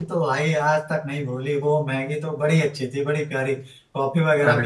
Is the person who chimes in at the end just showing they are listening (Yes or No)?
Yes